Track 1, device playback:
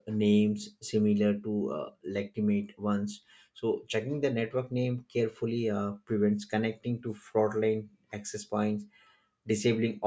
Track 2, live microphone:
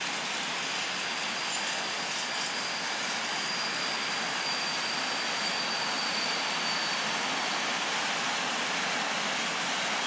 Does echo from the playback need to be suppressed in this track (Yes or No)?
No